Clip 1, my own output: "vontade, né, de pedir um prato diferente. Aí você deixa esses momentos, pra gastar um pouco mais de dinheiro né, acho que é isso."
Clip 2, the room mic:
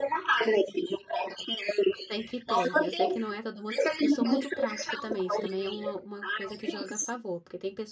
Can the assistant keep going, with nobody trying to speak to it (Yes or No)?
No